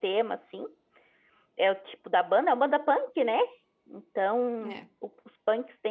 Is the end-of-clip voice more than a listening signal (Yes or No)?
No